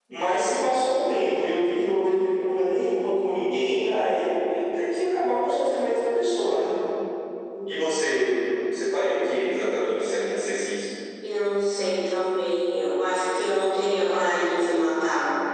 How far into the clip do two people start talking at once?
none

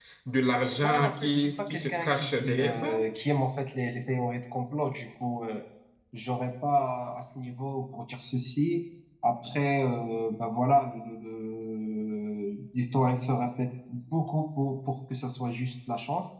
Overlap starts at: 0.8 s

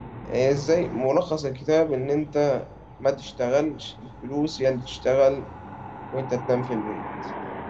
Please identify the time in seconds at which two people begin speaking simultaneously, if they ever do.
none

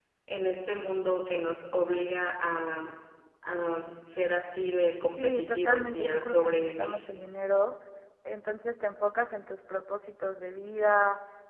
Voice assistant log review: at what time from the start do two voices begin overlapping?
5.2 s

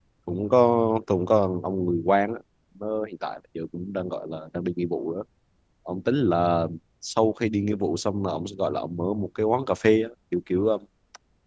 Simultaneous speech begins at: none

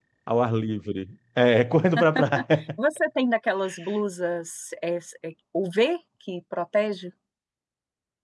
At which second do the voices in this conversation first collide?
none

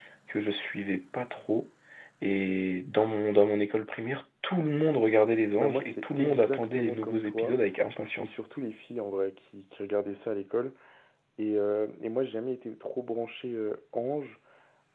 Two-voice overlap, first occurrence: 5.6 s

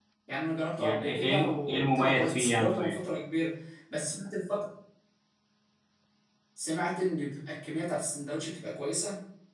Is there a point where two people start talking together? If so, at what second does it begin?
0.8 s

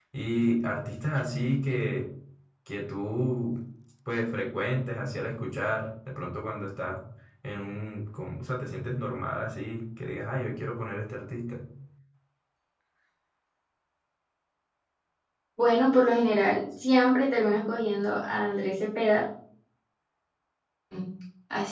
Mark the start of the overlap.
none

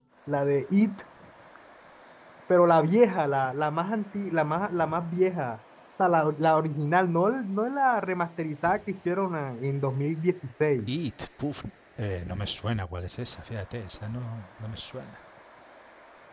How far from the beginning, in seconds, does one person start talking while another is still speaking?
none

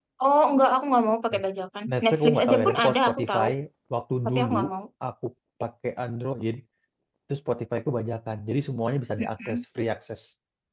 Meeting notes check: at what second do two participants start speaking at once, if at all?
1.9 s

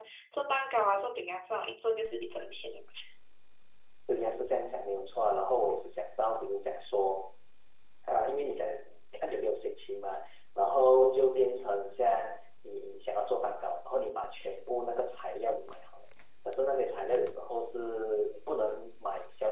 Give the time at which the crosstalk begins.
none

